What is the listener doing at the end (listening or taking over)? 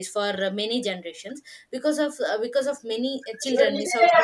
listening